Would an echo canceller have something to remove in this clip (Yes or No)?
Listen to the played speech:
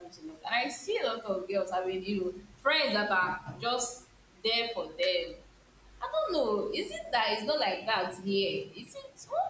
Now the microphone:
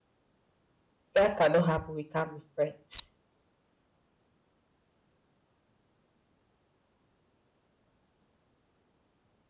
No